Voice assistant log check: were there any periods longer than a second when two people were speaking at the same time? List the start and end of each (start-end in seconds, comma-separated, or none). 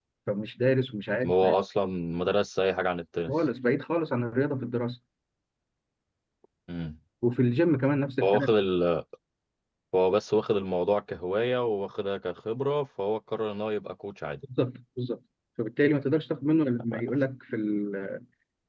none